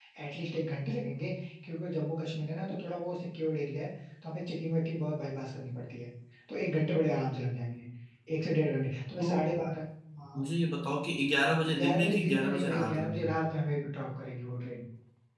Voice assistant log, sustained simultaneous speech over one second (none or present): present